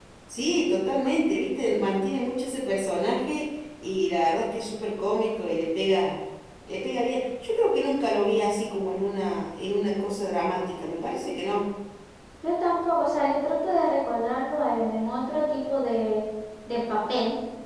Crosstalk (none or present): none